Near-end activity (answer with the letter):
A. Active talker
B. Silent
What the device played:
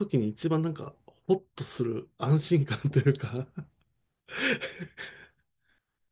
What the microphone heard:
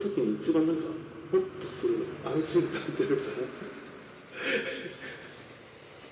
B